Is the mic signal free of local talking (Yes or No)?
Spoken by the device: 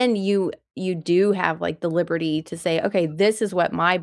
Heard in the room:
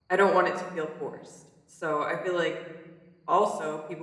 No